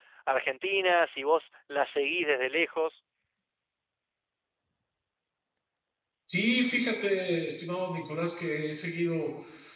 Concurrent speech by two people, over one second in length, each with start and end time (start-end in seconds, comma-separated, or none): none